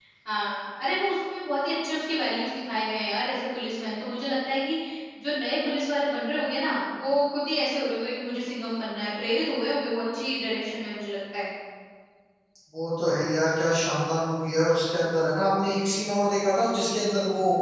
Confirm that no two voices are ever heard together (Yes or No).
Yes